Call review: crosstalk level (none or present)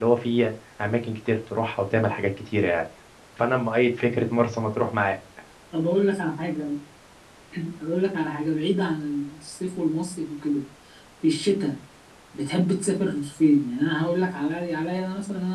none